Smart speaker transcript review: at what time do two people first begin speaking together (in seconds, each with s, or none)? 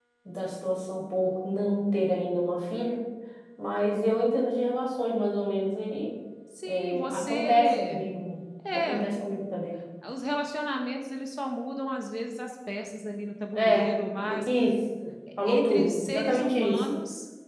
6.7 s